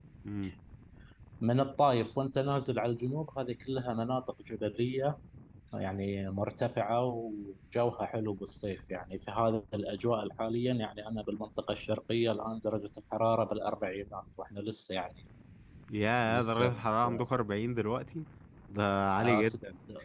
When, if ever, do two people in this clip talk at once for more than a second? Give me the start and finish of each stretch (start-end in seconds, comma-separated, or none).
none